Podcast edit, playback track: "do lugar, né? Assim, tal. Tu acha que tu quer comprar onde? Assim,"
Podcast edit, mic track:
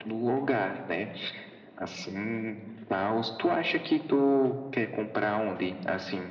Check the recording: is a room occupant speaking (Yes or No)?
No